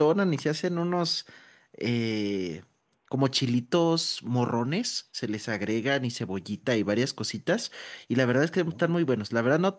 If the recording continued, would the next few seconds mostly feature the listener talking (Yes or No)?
No